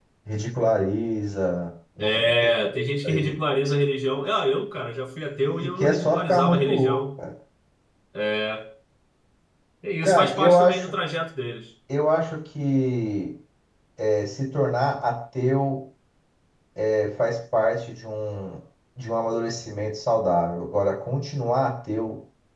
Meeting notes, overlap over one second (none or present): present